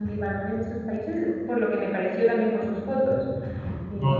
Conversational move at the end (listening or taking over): taking over